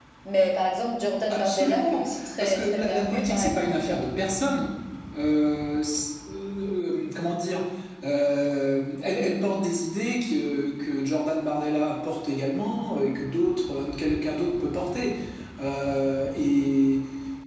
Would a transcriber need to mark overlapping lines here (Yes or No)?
Yes